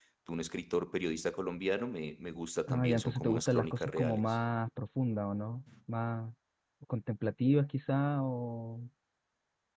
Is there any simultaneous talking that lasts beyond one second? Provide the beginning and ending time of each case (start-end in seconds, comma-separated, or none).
2.7-4.2